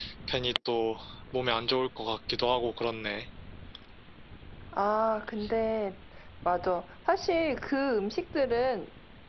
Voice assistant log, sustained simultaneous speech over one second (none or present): none